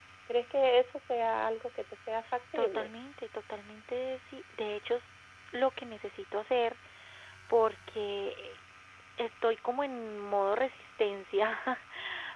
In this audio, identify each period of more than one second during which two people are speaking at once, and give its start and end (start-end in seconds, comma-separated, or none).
none